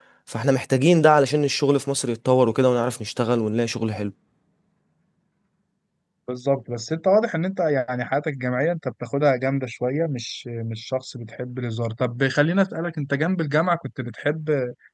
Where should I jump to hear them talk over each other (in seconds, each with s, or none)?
none